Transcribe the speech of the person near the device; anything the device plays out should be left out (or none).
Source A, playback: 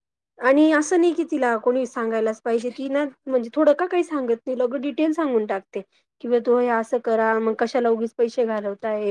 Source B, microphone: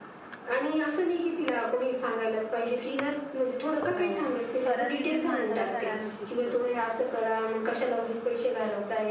हो परस्थितीतीचं माणसाला सगळ्या गोष्टी शिकवते.